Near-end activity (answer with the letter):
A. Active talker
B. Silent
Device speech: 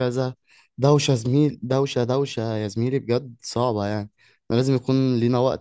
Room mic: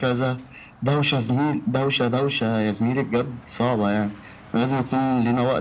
B